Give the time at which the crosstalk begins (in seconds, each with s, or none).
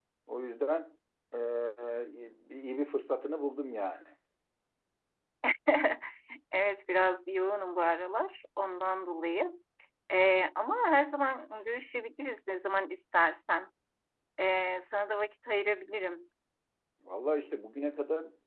none